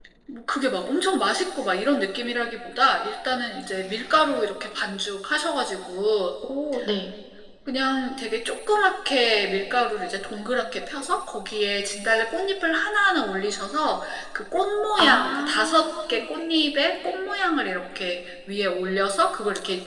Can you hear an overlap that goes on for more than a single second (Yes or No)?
Yes